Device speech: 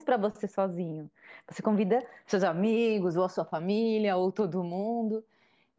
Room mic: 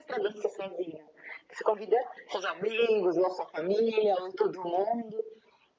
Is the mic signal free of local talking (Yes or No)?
Yes